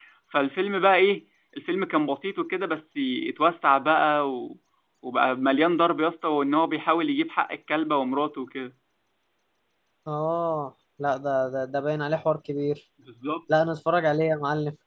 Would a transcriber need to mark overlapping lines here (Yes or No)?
No